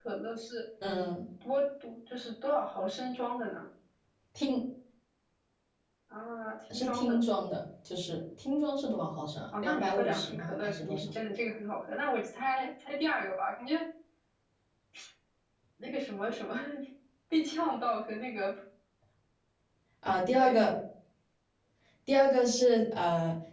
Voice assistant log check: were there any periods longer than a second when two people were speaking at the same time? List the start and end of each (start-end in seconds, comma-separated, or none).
9.6-11.1